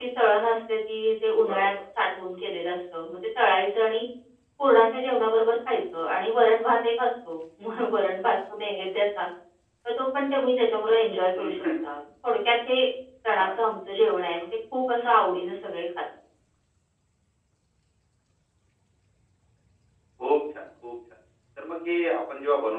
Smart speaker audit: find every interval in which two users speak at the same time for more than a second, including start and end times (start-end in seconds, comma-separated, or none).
none